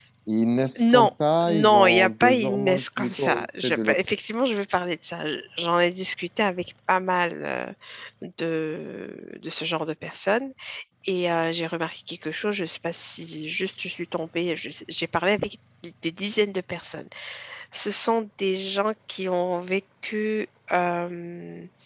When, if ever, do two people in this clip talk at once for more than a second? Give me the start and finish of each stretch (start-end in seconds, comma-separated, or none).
1.5-4.0